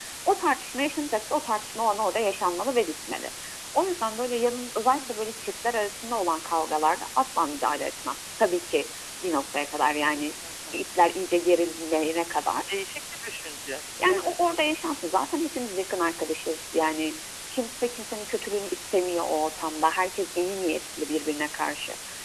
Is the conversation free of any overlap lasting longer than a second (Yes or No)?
Yes